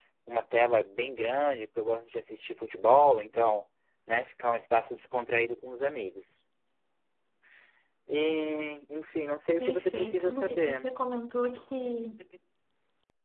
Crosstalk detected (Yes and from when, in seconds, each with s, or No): Yes, from 9.6 s